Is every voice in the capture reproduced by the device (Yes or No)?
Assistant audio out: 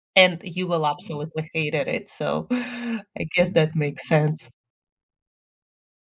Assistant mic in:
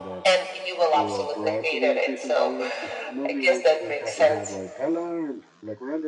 No